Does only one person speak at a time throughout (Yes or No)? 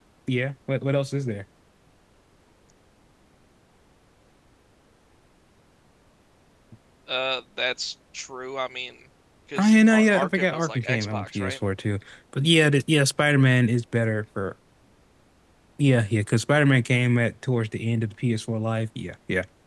No